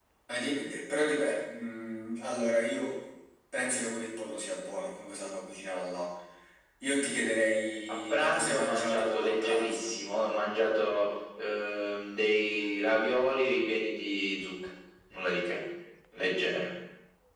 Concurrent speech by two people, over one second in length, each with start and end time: 8.1-9.9

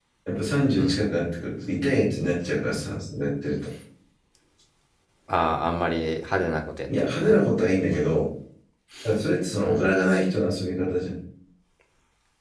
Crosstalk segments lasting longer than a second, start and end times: none

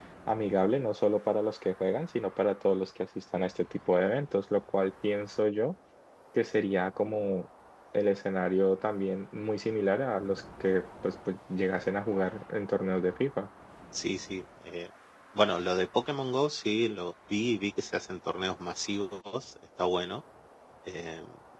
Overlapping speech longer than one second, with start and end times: none

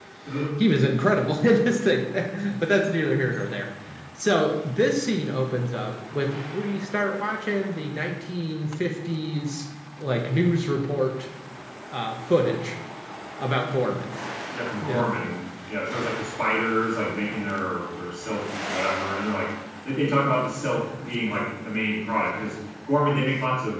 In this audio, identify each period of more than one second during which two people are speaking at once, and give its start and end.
none

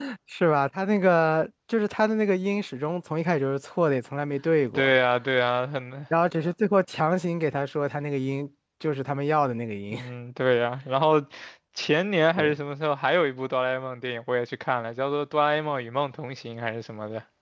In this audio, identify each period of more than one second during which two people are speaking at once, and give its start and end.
none

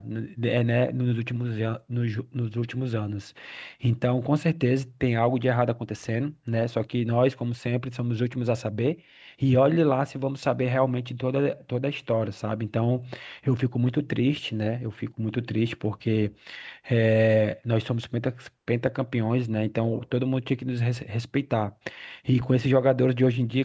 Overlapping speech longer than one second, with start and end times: none

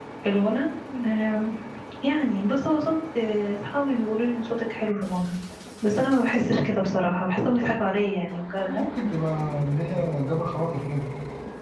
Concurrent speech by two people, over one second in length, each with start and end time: none

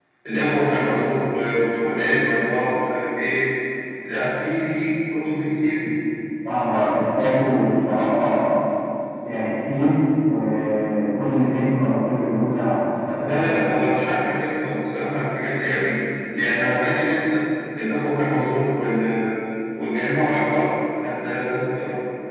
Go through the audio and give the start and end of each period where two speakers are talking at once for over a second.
none

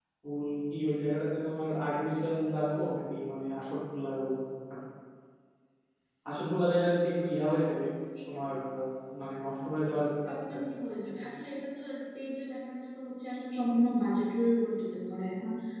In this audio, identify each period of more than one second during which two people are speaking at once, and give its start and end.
none

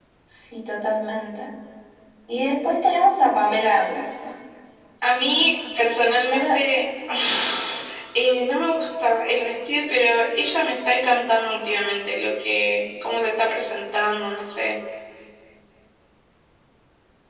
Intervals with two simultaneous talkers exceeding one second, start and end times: none

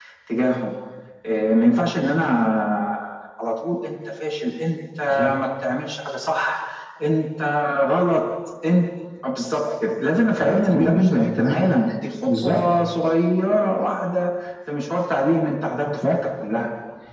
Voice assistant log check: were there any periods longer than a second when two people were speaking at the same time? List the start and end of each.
10.4-11.7

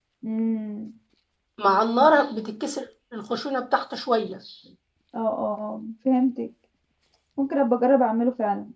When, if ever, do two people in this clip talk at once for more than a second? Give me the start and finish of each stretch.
none

